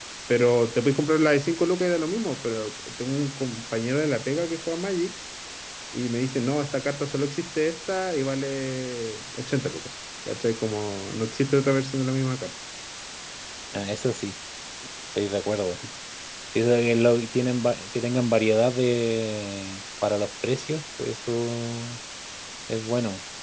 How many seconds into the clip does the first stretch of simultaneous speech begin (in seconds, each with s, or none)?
none